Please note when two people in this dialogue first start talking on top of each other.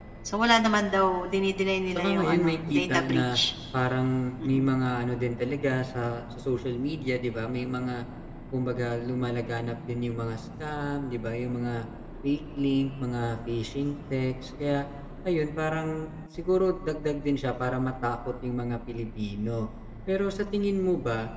1.9 s

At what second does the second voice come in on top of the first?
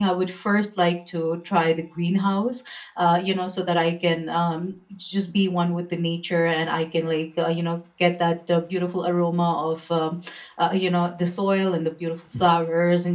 none

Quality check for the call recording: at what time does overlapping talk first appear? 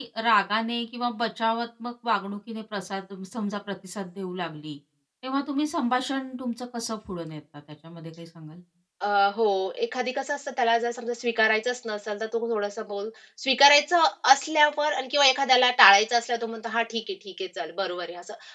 none

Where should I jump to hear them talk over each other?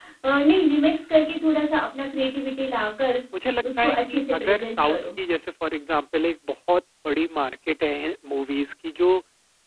3.8 s

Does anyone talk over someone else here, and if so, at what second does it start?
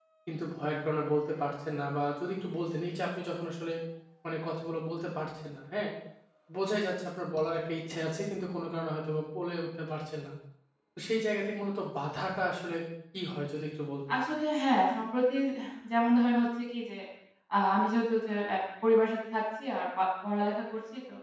none

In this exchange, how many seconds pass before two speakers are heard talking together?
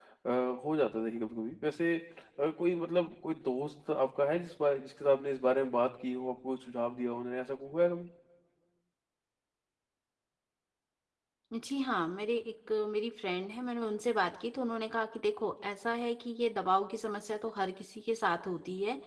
none

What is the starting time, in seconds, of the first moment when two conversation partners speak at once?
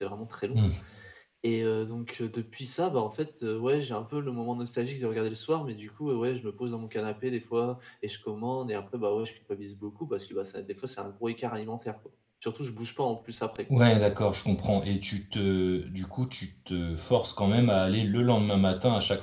none

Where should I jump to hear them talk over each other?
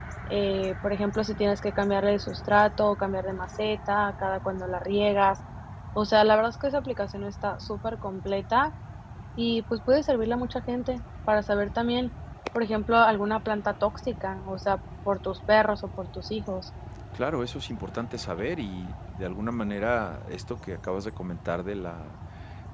none

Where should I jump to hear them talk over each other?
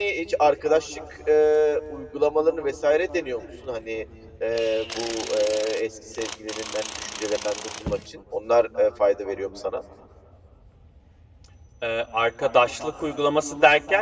none

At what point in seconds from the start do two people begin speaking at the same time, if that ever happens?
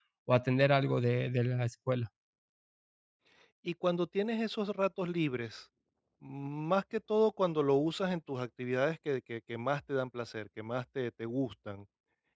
none

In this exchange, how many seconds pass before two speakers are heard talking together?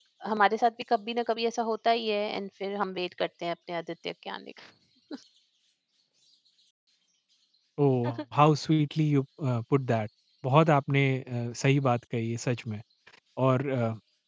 none

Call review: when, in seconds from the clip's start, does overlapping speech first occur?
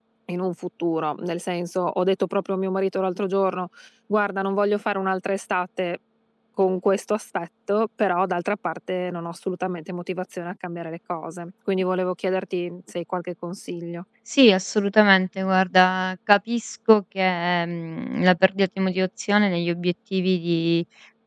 none

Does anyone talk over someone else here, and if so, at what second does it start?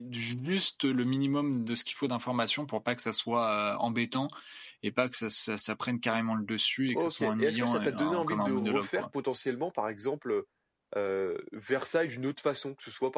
6.9 s

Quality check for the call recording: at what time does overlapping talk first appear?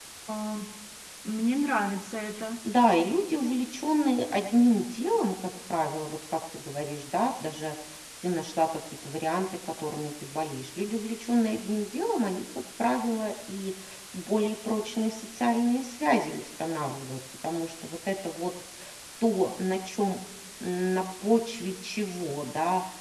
none

